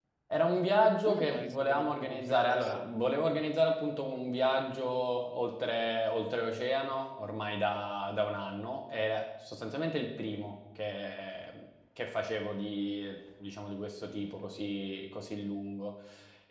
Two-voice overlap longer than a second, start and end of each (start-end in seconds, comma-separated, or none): 1.1-2.9